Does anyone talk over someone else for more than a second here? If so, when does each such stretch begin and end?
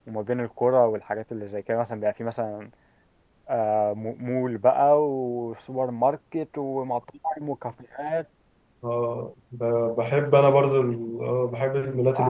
none

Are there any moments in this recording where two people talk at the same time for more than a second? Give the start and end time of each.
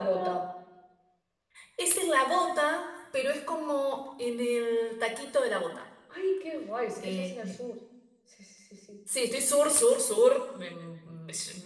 none

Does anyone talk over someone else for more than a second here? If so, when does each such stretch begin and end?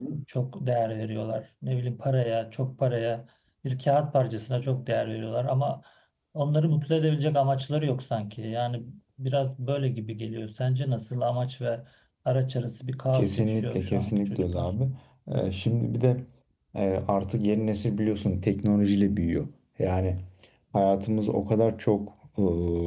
13.1-14.7

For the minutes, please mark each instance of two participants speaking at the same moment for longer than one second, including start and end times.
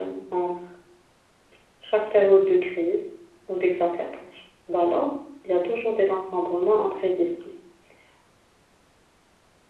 none

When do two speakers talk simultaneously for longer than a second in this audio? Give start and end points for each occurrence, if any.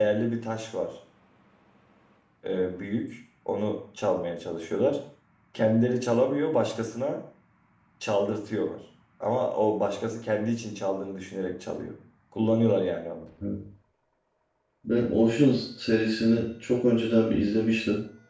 none

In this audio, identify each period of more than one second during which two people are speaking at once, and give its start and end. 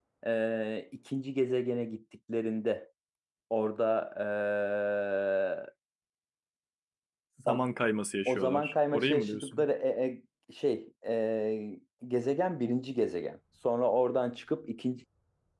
8.2-9.7

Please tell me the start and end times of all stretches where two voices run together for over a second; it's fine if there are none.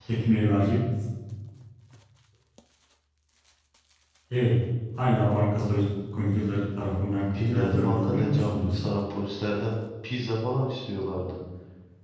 7.3-8.8

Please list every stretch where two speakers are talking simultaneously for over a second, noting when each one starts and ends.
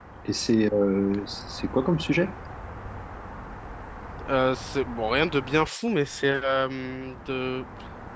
none

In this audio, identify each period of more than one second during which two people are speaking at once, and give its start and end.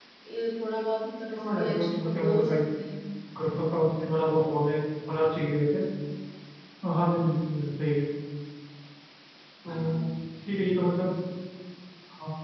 1.4-2.6

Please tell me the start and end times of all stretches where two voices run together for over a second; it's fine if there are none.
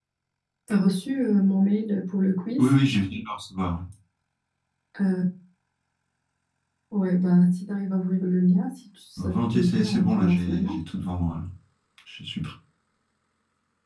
9.2-10.8

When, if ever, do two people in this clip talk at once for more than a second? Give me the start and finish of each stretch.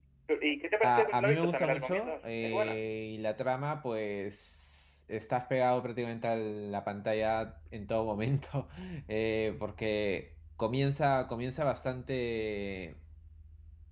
0.8-2.8

